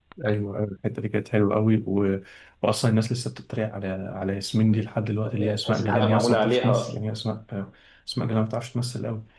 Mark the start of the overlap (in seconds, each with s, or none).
5.2 s